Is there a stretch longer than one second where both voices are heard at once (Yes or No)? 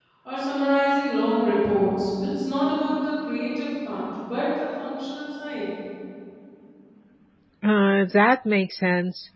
No